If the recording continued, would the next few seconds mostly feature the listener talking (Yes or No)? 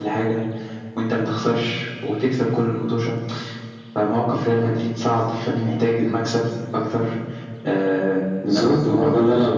Yes